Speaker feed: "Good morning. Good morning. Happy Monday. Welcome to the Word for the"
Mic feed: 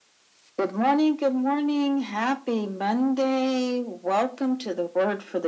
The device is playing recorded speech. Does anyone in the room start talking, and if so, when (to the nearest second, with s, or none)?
none